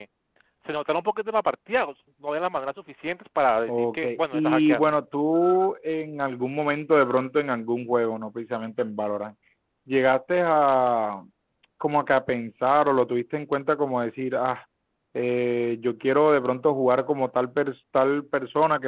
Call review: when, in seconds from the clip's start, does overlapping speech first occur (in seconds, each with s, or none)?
3.7 s